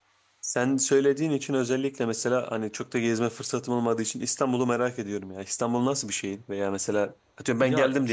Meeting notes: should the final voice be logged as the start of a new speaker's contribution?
No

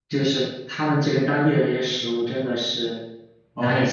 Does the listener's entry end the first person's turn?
Yes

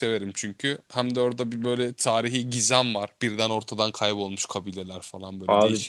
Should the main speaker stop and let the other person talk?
Yes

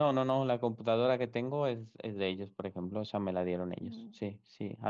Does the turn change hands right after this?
No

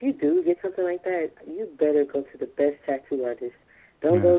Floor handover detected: No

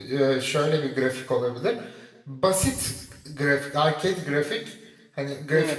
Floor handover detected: Yes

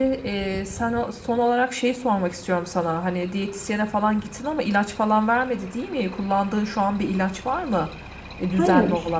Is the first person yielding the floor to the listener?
Yes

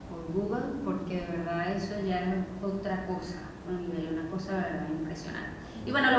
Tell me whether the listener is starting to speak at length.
No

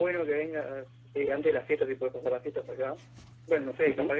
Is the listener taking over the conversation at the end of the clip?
Yes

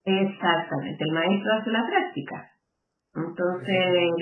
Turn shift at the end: No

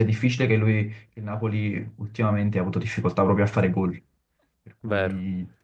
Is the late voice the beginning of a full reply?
Yes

